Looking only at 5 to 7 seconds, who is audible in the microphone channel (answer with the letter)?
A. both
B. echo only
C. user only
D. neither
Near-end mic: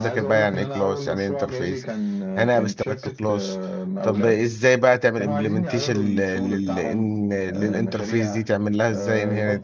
A